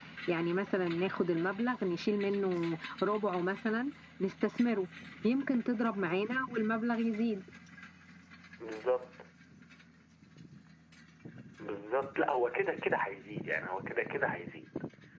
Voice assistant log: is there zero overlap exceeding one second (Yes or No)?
Yes